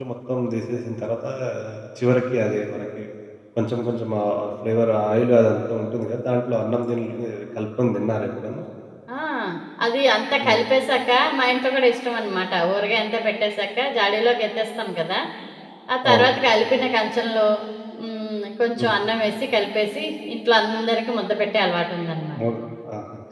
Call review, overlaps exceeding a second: none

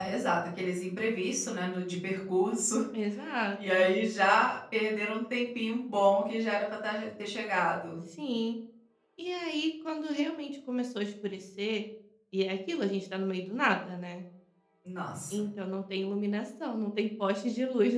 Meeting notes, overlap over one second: none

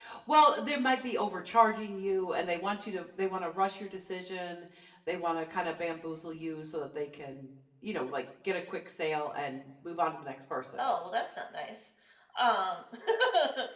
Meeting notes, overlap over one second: none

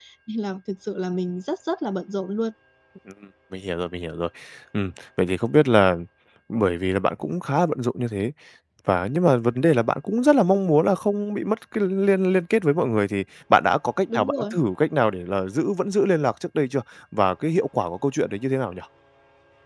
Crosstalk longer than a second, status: none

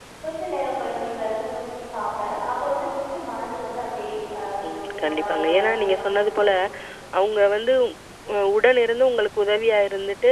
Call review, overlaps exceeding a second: present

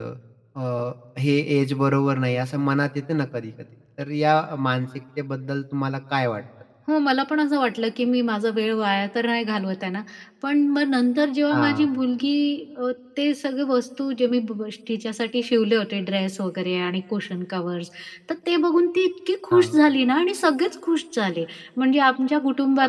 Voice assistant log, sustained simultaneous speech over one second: none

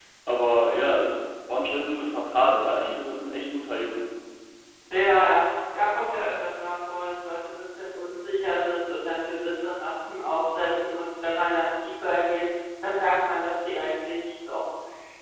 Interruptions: none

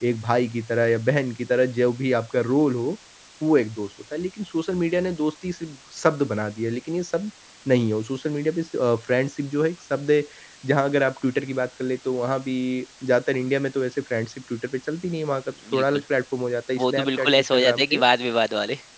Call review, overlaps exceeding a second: present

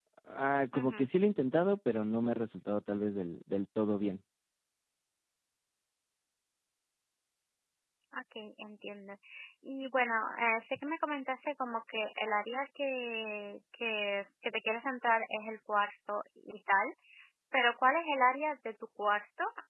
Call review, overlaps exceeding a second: none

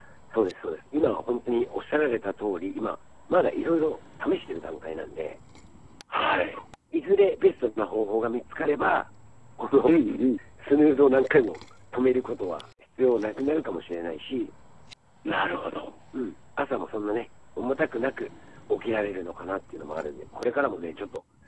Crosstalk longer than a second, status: none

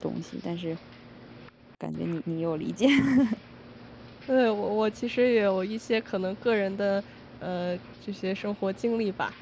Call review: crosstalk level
none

